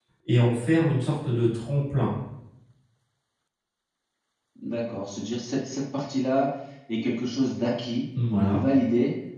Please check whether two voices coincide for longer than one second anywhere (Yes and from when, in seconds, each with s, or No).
No